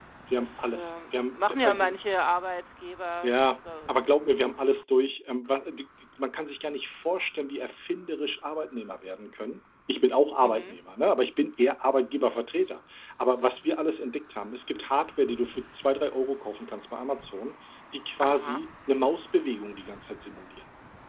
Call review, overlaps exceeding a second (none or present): present